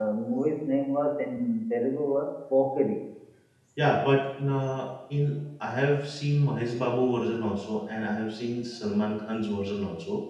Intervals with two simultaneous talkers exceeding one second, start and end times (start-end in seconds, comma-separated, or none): none